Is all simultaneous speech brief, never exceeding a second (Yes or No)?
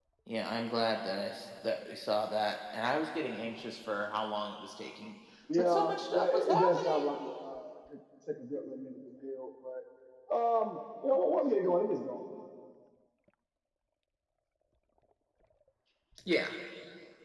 No